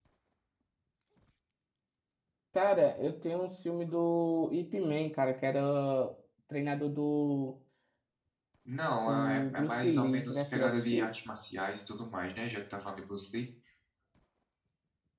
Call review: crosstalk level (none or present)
present